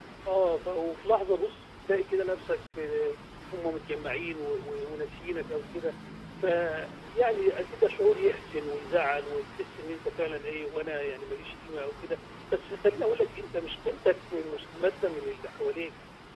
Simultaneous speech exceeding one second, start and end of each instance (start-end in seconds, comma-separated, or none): none